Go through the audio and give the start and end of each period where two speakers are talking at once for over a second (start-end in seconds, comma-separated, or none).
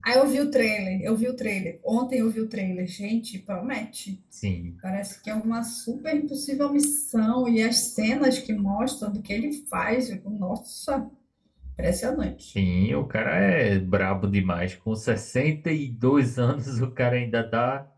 none